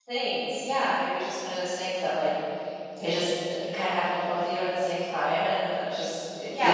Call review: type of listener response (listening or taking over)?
taking over